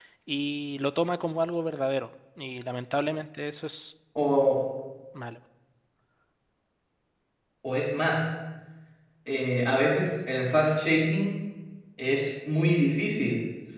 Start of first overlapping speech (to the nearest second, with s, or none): none